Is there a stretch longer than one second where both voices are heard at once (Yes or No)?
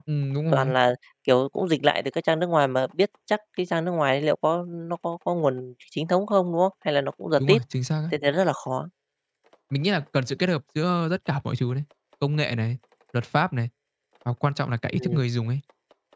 No